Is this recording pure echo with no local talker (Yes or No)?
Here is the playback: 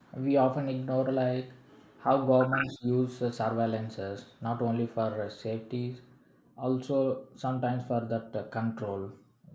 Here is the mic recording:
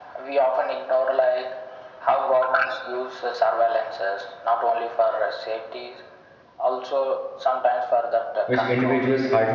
No